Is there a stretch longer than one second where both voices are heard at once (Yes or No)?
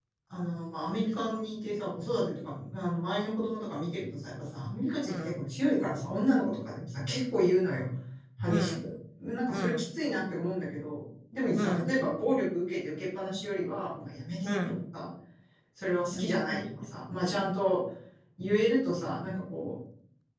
No